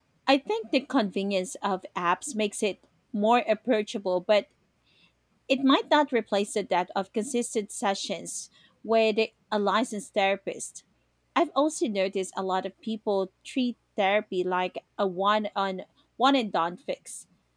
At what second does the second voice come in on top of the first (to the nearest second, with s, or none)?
none